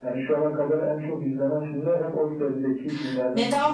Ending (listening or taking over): taking over